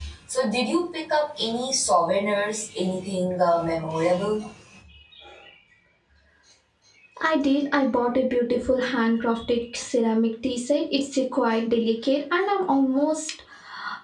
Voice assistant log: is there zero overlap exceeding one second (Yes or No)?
Yes